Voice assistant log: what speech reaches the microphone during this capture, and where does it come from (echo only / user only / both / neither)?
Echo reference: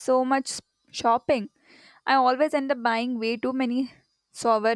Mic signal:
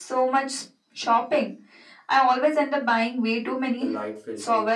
both